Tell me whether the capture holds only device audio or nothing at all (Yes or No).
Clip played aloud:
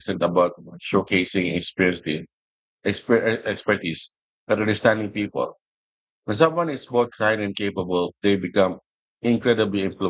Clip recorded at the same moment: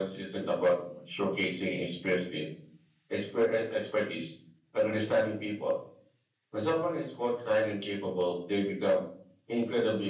Yes